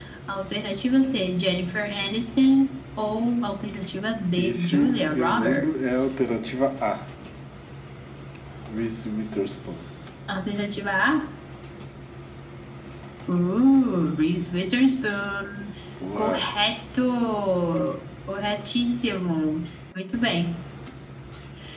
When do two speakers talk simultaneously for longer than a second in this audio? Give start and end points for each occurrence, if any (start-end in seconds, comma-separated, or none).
4.4-6.2